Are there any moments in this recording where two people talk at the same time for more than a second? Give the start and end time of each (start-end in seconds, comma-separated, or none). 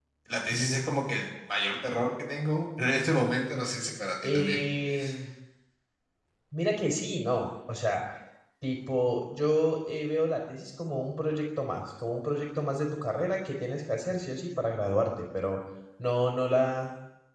none